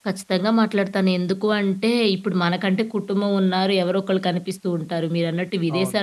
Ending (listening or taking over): listening